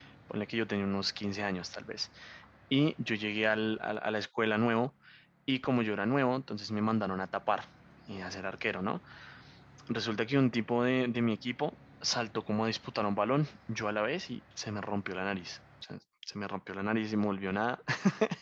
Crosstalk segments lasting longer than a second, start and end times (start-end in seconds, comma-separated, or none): none